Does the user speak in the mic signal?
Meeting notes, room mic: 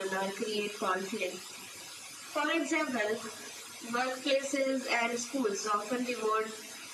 No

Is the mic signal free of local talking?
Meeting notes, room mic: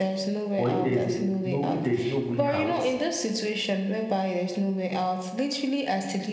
No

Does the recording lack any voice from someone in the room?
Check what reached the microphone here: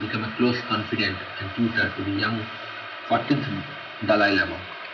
Yes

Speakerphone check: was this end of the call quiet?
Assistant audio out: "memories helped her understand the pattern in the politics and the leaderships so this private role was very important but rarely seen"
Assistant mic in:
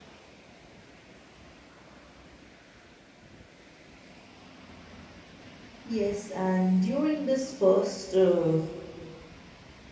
No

